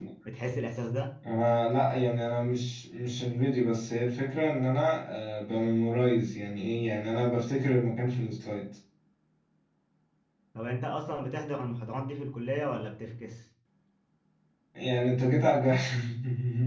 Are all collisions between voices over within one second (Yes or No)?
Yes